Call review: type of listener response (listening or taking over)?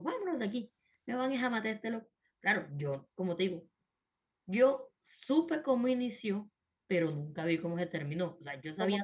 taking over